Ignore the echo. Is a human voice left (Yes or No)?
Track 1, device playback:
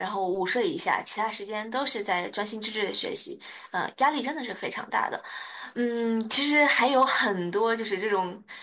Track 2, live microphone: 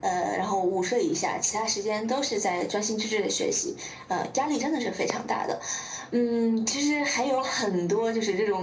No